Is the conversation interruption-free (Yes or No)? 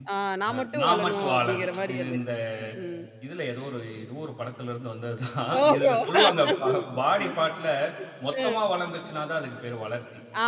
No